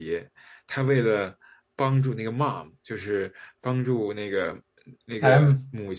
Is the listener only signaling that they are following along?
Yes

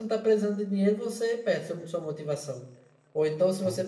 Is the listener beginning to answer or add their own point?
No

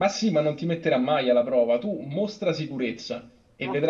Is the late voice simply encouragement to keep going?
Yes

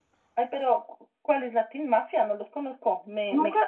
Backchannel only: No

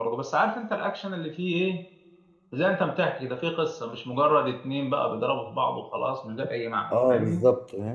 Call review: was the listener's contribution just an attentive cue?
No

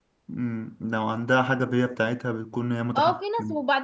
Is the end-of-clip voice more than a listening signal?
Yes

